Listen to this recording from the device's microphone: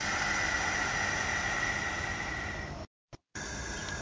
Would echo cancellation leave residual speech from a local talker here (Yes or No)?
No